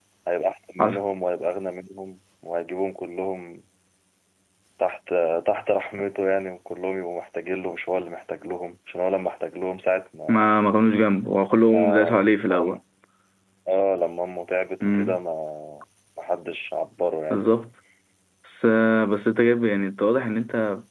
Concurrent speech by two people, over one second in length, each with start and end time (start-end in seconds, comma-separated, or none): none